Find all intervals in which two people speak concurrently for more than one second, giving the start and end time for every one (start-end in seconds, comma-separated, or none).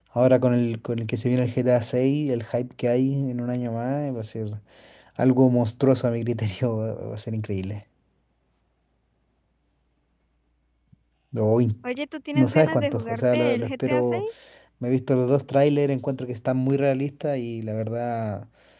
12.4-14.2